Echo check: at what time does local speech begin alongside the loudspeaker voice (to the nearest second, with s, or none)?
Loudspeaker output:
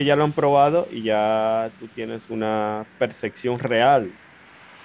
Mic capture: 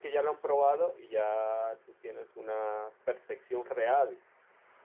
none